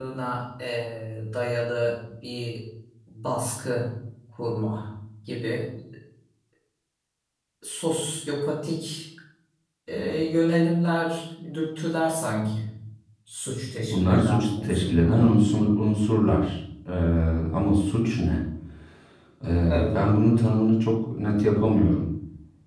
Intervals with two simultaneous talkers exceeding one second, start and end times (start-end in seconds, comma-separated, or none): 13.8-15.1